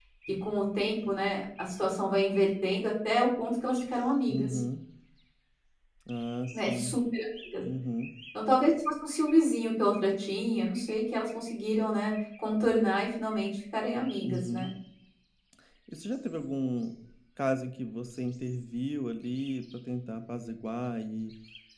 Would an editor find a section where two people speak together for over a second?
No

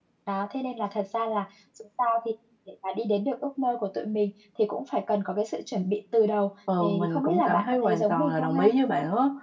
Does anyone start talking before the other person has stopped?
Yes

